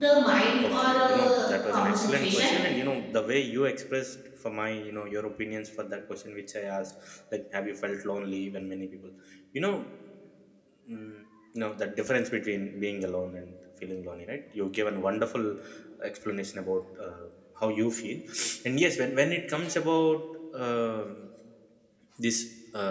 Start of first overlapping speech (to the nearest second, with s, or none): 1 s